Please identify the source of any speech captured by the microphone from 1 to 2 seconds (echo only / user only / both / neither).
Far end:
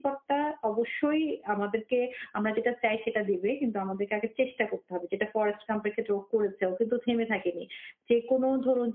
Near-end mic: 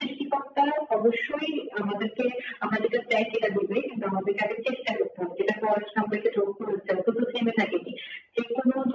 echo only